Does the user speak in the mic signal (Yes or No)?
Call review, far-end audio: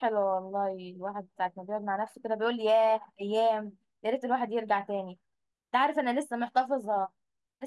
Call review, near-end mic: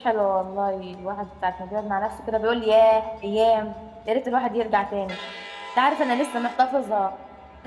No